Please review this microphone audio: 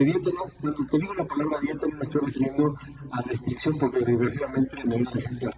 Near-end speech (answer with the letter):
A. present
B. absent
B